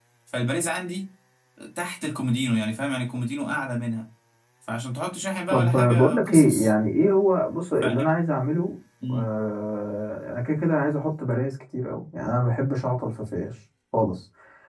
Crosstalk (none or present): present